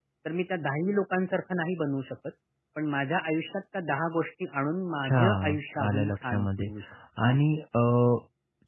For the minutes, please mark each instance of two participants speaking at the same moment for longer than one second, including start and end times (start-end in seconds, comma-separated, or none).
5.0-6.7